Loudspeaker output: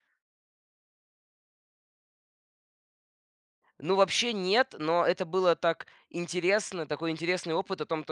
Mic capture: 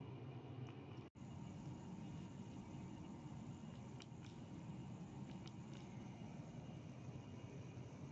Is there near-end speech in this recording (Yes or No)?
No